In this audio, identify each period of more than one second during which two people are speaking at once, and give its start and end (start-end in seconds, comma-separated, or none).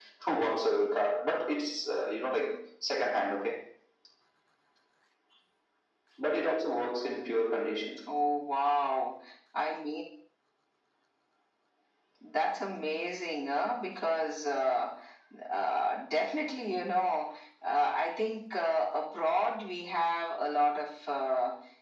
none